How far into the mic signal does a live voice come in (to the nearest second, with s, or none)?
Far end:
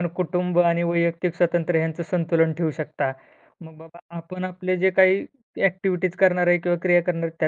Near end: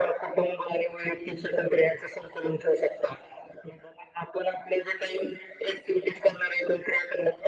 none